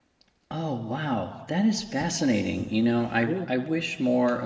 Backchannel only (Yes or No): Yes